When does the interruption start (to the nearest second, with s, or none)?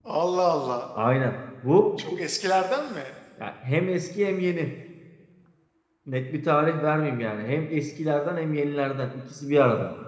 none